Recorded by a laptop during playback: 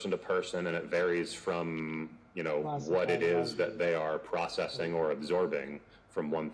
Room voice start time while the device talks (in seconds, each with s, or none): 2.5 s